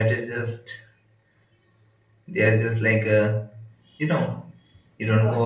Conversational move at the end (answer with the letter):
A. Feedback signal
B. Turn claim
A